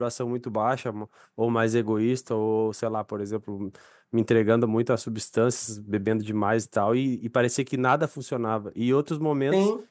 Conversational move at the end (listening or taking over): listening